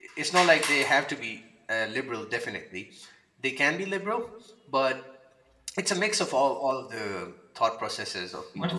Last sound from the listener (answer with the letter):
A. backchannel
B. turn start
B